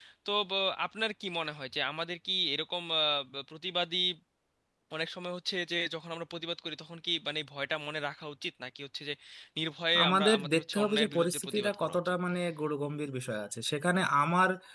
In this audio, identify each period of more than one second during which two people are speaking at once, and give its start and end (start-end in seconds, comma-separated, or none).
10.0-12.1